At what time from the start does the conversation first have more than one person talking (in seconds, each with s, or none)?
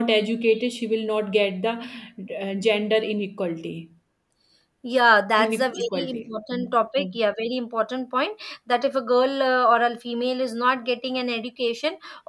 5.4 s